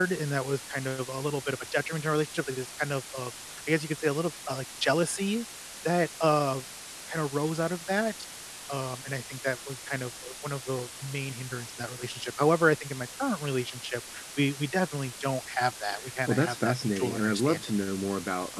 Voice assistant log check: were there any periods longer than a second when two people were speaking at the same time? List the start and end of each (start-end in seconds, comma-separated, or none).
16.3-17.7